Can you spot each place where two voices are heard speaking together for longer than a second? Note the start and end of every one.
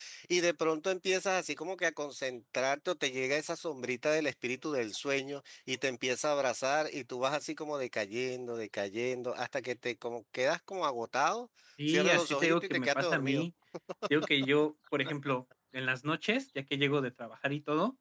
11.9-13.4

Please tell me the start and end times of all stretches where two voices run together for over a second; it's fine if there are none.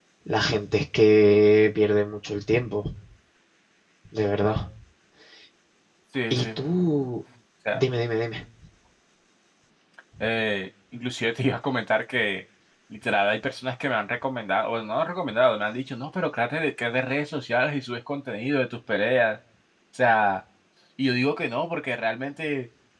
none

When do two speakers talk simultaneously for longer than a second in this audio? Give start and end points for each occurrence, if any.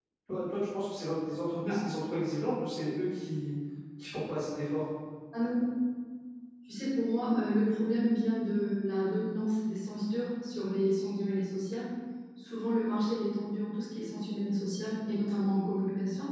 none

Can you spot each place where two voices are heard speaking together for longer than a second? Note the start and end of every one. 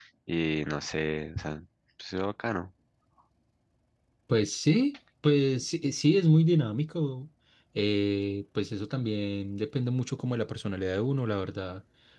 none

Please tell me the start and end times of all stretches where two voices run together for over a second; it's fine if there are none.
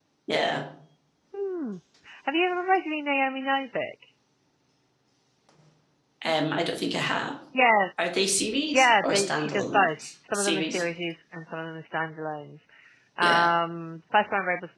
8.7-10.8

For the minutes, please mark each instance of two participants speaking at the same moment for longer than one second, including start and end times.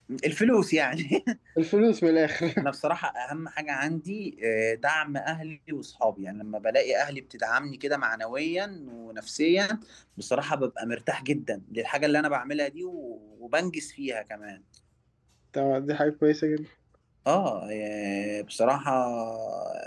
none

